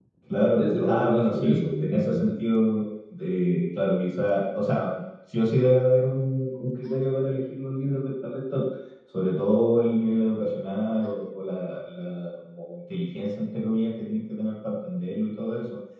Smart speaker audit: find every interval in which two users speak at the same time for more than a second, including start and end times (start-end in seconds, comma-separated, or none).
0.6-2.3